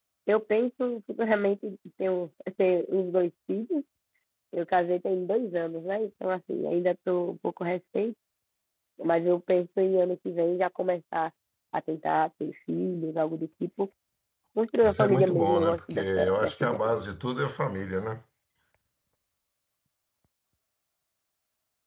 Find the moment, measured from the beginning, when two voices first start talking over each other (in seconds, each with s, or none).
14.8 s